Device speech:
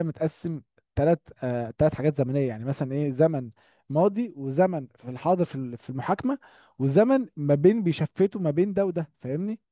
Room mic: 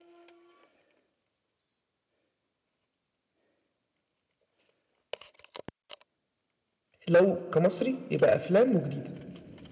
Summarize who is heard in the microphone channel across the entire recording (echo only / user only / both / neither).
user only